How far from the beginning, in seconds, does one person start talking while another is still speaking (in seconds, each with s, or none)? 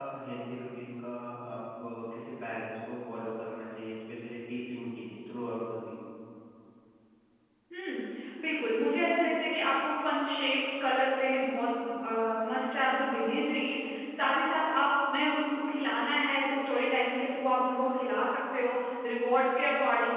none